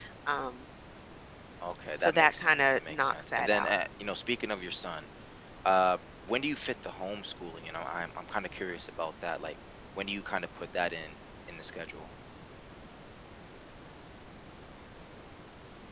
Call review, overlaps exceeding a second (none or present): present